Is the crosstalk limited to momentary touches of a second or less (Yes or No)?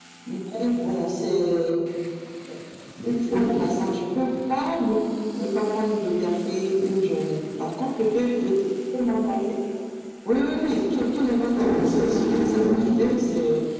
No